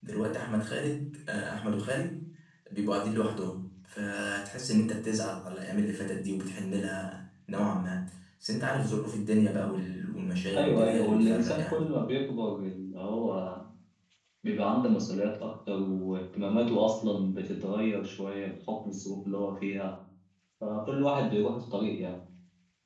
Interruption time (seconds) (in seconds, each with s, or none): 10.5 s